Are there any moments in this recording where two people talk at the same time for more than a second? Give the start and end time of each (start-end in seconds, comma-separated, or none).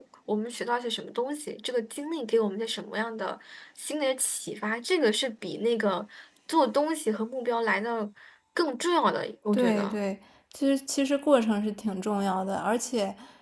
none